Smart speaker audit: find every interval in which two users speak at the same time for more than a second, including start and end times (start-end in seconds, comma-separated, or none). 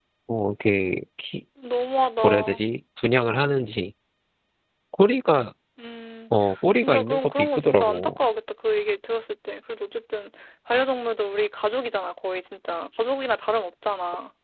6.8-8.2